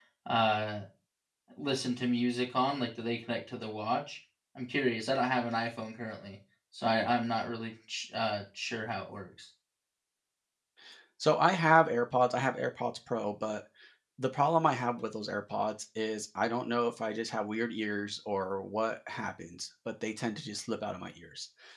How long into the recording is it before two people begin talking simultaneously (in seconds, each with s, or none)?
none